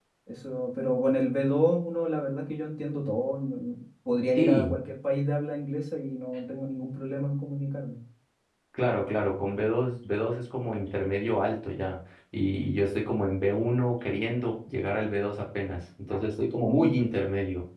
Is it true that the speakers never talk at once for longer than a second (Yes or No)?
Yes